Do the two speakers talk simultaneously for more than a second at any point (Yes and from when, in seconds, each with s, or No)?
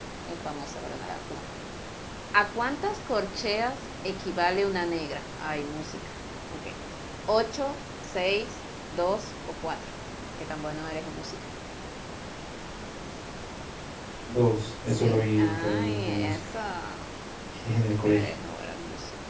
Yes, from 14.9 s